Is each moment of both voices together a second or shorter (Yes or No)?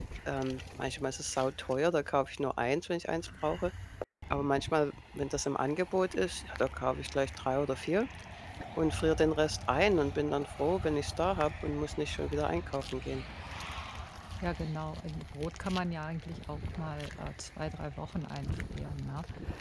Yes